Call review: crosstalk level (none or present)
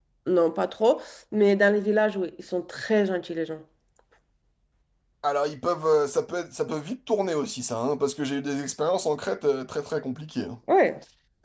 none